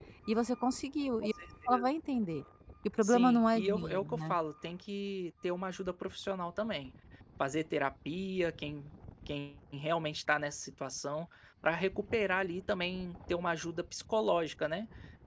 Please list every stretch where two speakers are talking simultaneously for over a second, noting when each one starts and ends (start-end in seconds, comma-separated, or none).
3.0-4.4